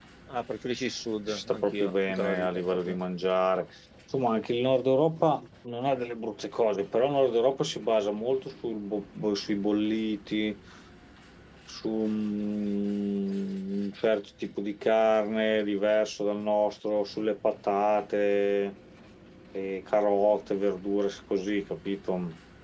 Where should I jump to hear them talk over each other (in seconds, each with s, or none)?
1.3 s